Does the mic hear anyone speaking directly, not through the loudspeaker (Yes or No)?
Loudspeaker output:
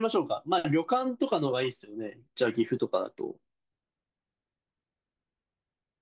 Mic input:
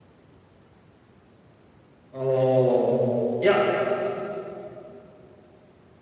Yes